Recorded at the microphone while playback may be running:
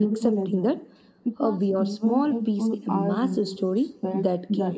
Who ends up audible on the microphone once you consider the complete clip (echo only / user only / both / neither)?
echo only